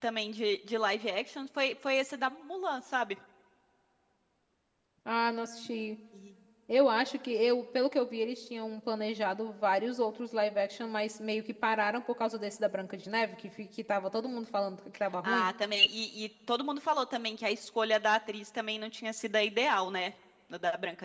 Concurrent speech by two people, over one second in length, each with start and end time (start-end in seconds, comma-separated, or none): none